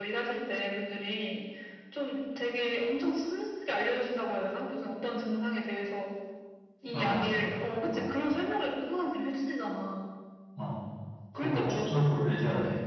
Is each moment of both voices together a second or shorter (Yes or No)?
No